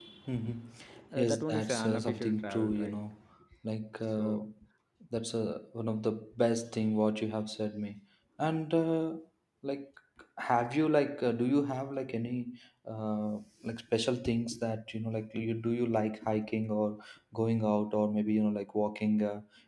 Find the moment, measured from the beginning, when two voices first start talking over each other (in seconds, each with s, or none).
1.1 s